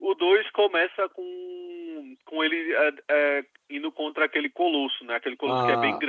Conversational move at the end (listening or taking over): taking over